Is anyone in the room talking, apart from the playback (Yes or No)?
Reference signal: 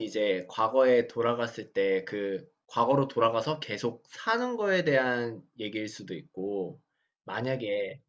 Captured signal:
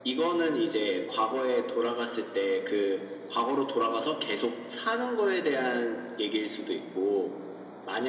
No